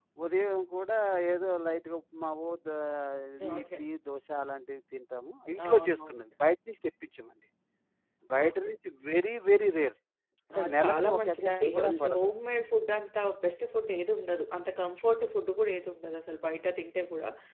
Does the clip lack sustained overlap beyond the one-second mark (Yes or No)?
No